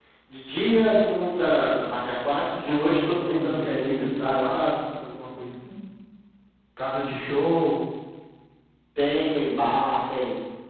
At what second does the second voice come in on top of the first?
3 s

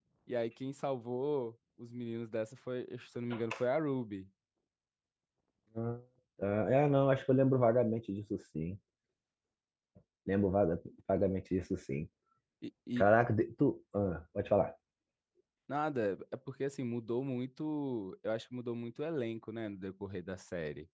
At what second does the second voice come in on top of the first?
none

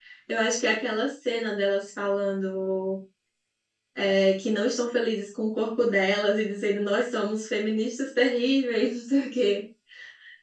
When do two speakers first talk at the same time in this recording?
none

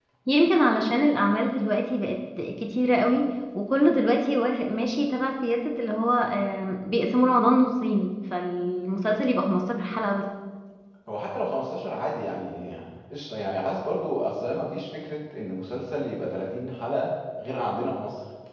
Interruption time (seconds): none

